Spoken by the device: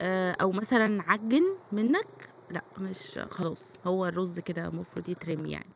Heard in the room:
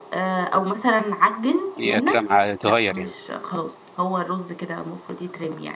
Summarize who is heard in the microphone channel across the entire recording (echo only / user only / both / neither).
both